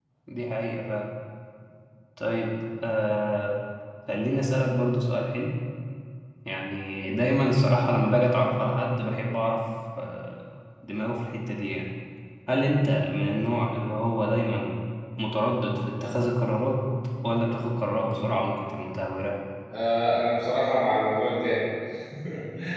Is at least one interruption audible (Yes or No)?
No